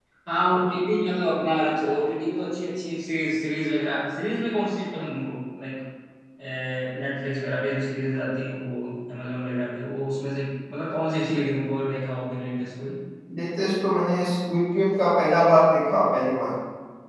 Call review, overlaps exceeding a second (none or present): none